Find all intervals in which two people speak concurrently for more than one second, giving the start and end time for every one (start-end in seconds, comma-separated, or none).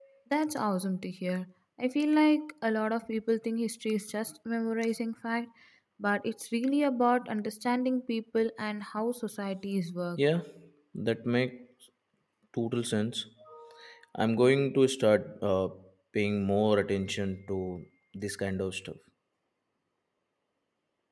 none